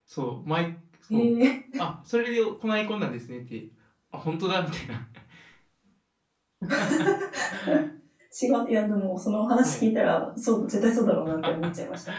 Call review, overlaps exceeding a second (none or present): none